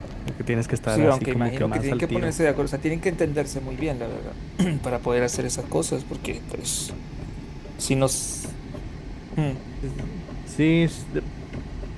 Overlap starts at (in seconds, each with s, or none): 0.9 s